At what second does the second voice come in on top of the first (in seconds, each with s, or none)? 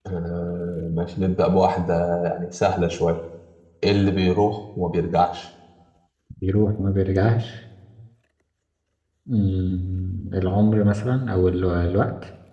none